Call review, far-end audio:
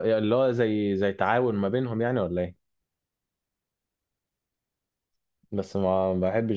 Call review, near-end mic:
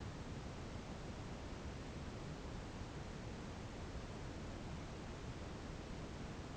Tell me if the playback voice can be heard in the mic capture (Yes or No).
No